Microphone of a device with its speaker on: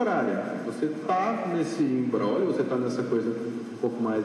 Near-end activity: none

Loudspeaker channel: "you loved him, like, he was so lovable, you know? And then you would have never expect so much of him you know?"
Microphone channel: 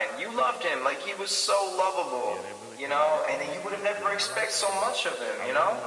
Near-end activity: present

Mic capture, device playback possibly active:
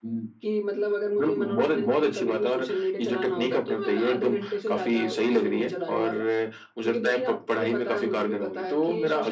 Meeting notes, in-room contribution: none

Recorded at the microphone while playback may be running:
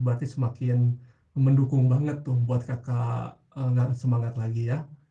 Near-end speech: present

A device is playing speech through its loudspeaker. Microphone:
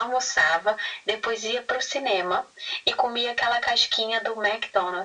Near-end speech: none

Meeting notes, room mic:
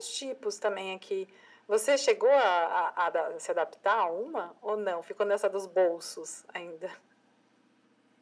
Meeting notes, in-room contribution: none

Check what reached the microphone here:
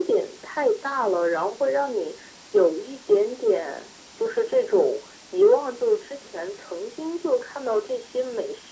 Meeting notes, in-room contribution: none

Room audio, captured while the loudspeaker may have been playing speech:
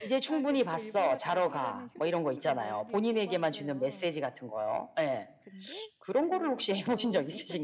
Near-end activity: present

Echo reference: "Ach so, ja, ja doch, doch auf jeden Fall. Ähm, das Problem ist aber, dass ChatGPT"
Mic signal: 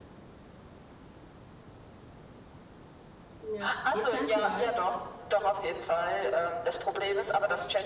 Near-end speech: present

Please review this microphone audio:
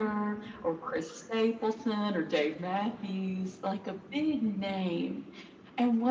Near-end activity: none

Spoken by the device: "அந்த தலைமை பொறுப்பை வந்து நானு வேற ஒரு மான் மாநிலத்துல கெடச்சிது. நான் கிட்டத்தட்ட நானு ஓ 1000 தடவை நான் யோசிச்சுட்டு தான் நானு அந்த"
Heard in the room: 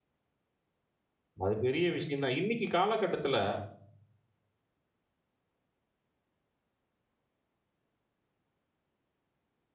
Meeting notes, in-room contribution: present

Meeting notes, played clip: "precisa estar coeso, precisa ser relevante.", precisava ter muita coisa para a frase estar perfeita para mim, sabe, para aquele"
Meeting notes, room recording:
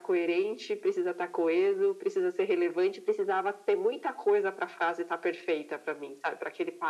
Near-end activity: none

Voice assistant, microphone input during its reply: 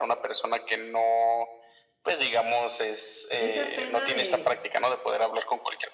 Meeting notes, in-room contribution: present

